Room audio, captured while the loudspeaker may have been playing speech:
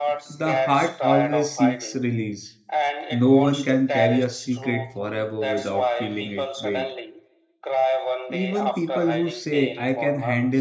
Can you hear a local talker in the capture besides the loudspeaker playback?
Yes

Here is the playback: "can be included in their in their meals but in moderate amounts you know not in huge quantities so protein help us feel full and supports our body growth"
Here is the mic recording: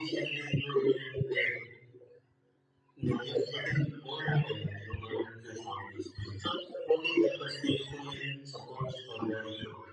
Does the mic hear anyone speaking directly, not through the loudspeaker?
No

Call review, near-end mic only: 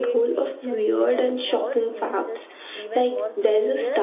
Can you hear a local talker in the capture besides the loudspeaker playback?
Yes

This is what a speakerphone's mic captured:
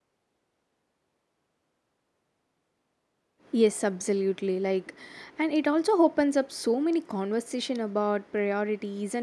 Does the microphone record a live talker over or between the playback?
Yes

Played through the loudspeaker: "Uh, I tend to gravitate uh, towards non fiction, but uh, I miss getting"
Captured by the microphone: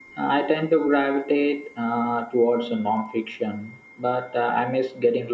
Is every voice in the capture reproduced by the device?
Yes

